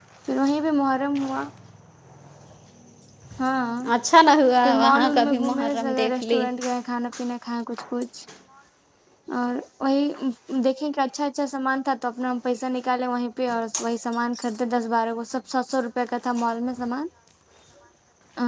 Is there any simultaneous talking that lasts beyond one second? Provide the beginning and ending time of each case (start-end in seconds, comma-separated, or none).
4.6-6.5